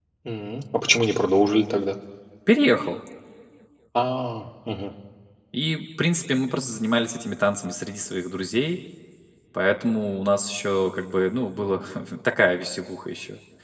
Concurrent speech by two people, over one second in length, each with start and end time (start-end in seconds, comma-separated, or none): none